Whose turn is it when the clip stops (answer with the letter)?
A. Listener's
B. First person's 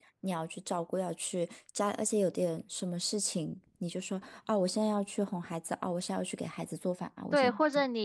A